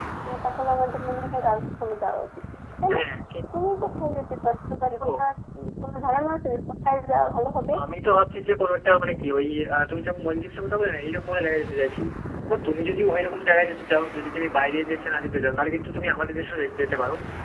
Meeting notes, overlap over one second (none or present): none